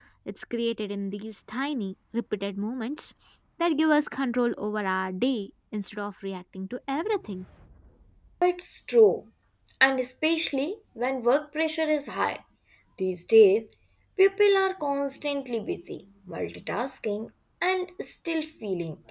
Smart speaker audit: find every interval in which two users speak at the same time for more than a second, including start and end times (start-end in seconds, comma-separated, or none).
none